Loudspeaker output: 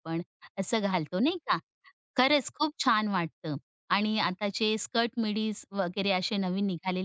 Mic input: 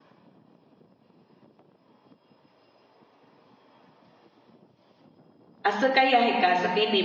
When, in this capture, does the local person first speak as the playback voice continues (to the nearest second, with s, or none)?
6 s